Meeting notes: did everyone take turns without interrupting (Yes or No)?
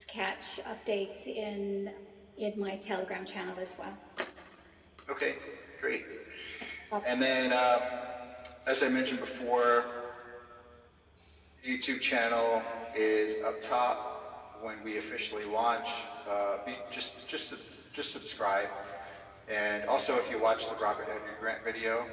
Yes